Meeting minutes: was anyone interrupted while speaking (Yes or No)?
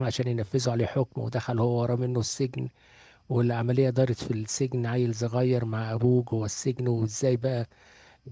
No